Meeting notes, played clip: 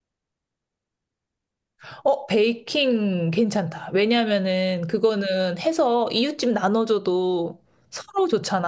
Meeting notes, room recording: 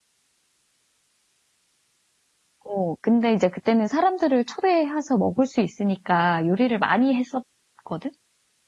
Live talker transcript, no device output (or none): 어, 근데 이제 그때는 사람들을 초대해서 먹을 수 있으니까 요리를 많이 했었거든?